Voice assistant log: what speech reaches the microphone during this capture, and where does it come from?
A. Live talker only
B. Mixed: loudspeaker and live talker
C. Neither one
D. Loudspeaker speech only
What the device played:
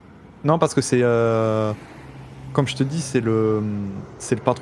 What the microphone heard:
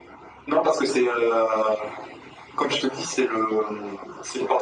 D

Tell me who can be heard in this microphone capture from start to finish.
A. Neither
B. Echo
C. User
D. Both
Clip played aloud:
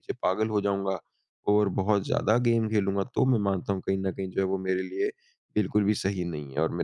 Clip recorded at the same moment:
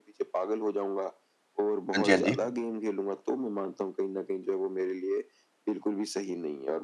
D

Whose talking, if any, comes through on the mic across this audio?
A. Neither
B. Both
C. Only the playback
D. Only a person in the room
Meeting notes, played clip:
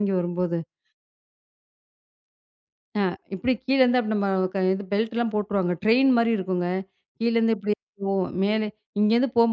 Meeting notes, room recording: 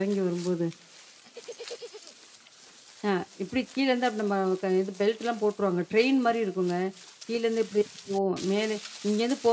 C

